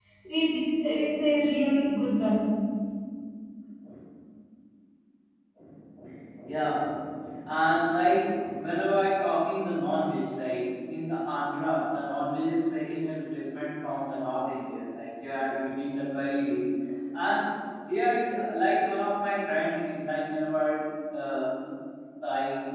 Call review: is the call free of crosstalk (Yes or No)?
Yes